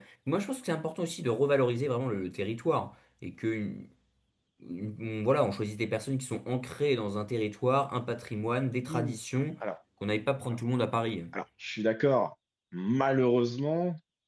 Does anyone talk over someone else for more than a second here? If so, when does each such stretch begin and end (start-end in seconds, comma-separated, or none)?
none